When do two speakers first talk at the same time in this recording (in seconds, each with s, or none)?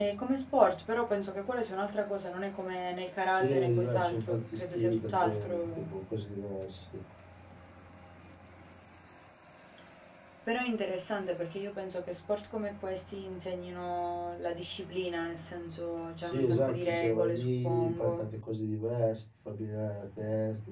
3.3 s